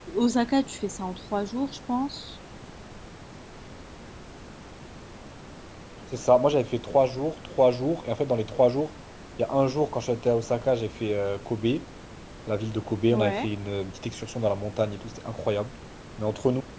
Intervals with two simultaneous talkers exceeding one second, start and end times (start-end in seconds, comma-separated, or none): none